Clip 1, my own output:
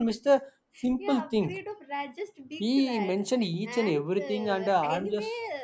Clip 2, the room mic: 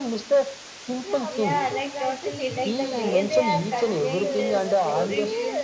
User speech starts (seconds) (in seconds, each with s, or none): 1.3 s